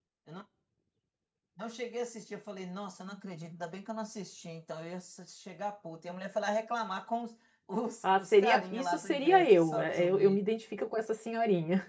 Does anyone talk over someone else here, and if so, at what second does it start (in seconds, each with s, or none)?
8.0 s